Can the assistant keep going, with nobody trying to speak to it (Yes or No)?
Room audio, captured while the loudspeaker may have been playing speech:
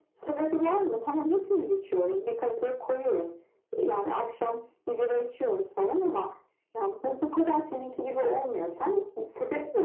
Yes